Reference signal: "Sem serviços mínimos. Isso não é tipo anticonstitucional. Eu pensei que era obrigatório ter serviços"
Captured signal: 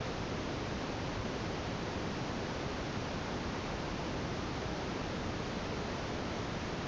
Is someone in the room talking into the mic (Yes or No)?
No